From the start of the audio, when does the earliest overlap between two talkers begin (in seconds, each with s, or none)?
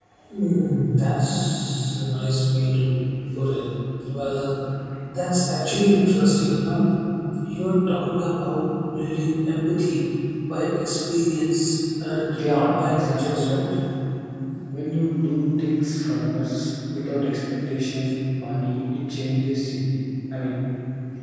12.3 s